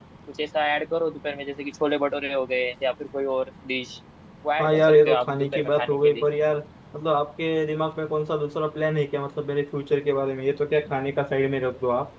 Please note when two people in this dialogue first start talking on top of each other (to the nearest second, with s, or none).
5 s